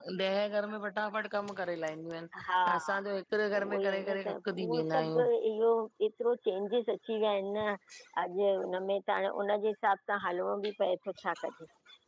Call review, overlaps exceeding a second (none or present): present